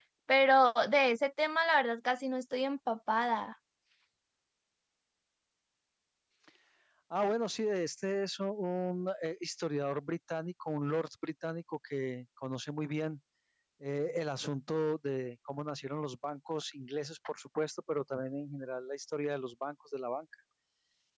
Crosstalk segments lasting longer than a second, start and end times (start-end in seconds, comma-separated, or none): none